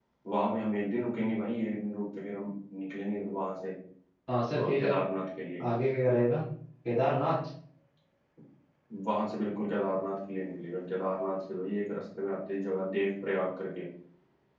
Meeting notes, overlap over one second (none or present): none